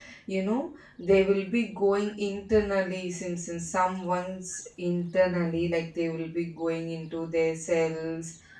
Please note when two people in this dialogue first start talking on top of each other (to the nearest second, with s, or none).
none